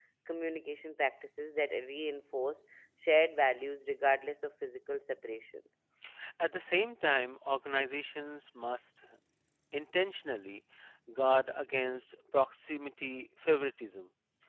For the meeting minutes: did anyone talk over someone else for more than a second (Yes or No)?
No